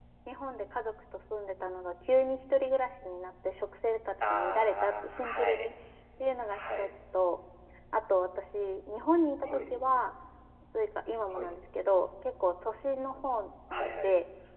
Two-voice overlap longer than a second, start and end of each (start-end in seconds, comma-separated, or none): 4.2-5.7